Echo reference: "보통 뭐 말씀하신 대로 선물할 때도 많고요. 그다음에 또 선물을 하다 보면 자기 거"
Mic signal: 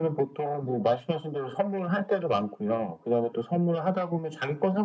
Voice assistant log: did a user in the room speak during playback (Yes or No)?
No